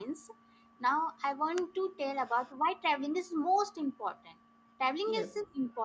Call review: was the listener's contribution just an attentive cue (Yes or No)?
Yes